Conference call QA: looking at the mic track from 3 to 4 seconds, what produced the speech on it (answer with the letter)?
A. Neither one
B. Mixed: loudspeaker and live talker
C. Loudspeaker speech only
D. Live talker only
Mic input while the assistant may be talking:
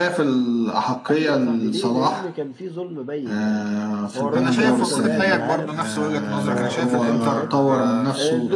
C